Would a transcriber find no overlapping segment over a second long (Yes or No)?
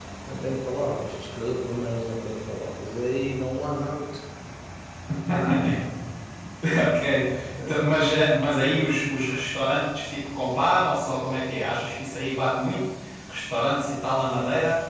Yes